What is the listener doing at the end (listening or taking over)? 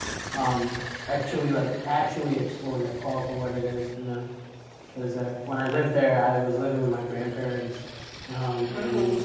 listening